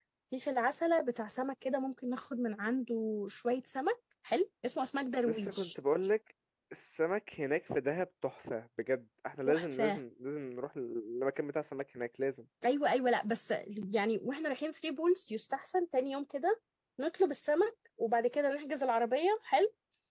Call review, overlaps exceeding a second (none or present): none